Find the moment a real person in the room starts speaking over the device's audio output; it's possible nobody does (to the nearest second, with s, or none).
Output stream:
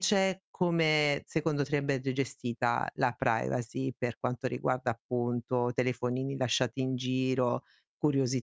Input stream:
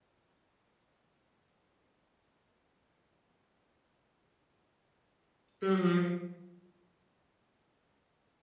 6 s